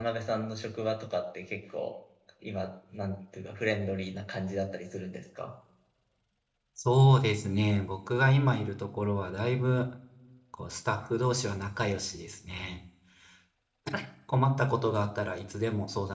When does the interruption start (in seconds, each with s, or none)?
none